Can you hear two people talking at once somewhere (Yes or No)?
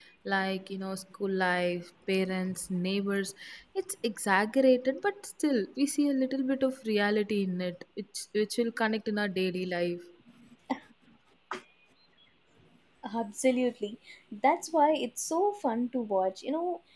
No